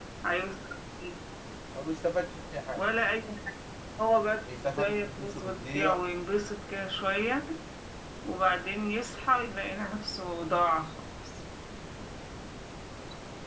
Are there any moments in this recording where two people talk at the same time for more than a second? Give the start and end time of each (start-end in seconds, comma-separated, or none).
4.8-6.0